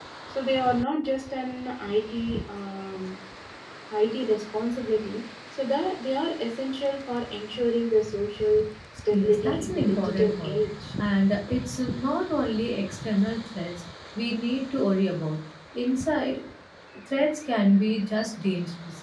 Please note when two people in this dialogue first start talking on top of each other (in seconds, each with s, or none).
9.1 s